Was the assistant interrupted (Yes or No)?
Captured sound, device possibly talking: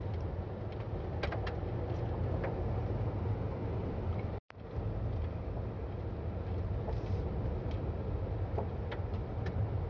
No